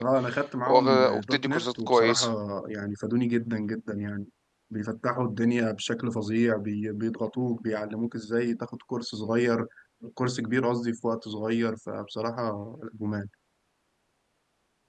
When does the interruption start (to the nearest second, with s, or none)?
1 s